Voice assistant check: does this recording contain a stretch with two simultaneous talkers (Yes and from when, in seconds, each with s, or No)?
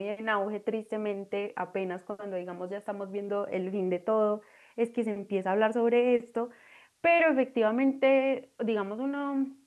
No